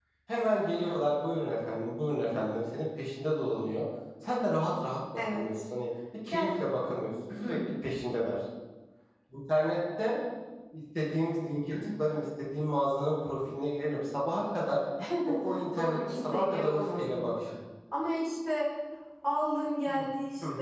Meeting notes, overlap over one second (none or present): present